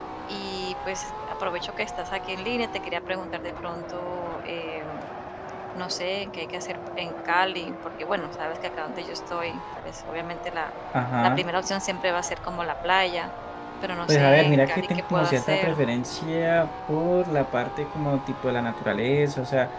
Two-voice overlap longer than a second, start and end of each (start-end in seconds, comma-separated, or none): 14.1-15.8